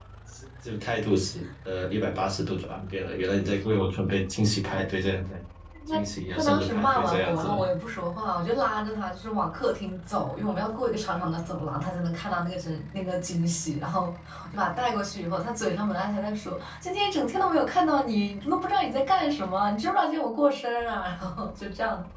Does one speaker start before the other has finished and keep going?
Yes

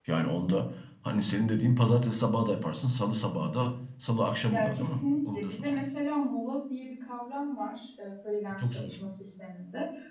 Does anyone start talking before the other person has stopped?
Yes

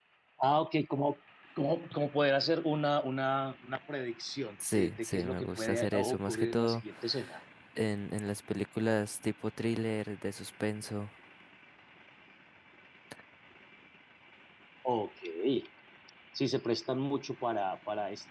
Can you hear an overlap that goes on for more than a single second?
Yes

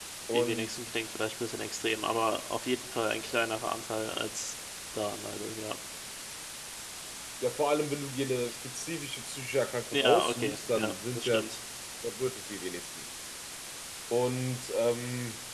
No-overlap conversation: No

